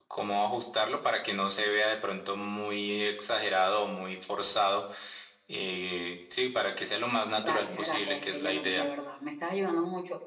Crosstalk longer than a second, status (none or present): present